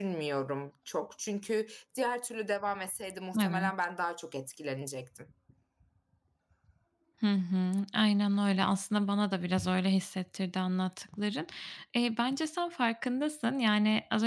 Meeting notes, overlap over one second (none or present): none